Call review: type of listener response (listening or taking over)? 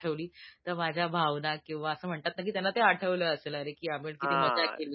taking over